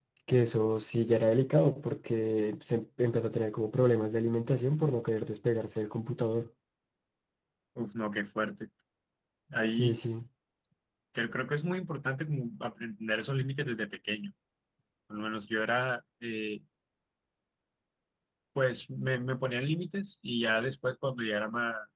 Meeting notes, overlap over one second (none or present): none